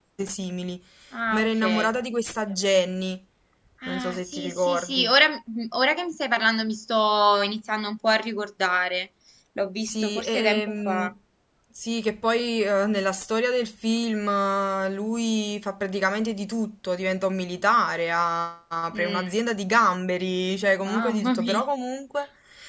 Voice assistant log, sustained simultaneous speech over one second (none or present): present